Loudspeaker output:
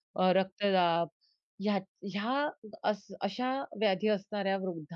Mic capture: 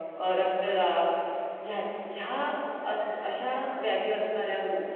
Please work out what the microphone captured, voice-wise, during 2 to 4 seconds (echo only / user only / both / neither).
echo only